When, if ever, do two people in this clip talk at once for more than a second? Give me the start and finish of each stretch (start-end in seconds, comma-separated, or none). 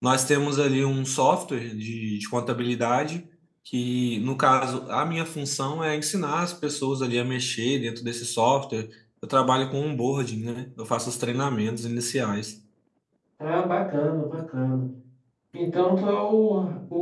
none